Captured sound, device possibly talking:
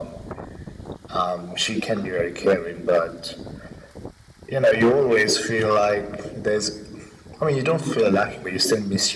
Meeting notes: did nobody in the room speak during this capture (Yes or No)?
Yes